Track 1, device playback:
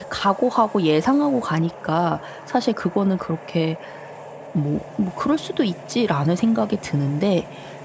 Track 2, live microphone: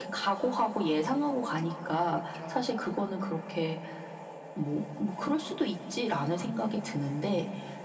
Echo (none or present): present